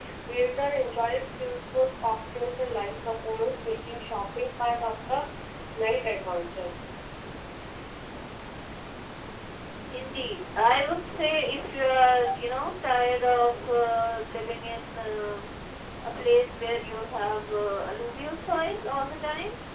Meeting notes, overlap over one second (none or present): none